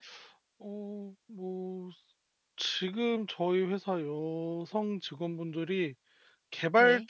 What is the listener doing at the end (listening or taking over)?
listening